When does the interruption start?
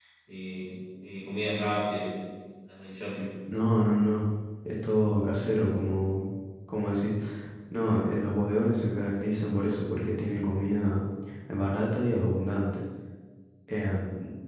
none

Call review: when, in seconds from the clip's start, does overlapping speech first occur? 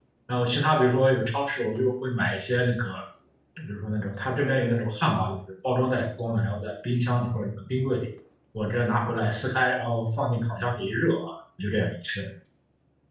none

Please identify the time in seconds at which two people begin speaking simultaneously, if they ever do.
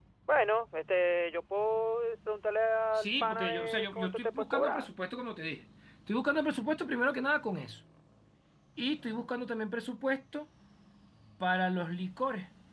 2.9 s

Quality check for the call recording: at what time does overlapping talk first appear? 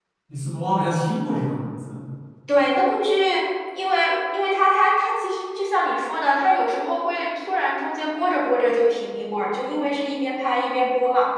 none

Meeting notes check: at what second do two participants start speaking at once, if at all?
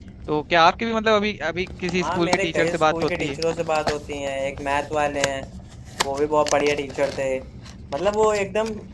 2.0 s

